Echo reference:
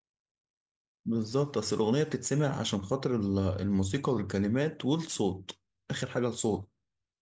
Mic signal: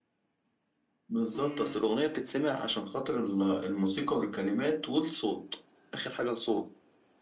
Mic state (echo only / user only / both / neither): both